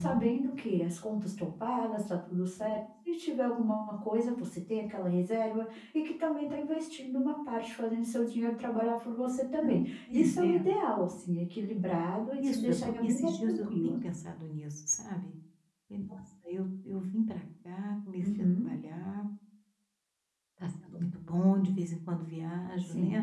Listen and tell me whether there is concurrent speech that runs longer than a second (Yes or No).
Yes